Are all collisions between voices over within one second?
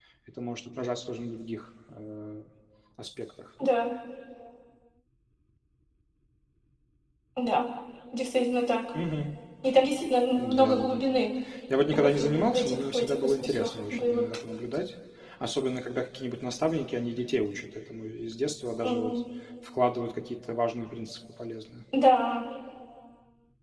No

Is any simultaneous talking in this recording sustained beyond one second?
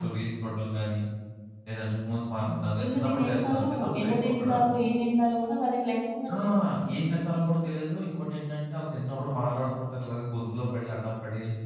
Yes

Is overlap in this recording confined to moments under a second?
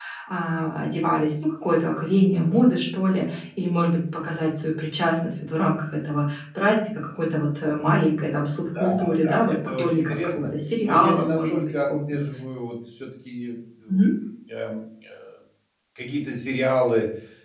No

